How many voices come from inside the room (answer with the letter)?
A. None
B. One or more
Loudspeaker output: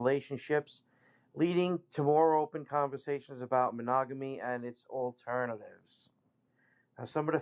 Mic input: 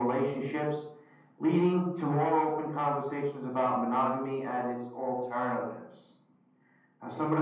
A